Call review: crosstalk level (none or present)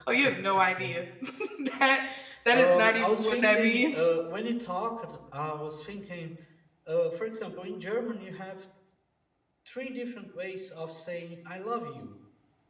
present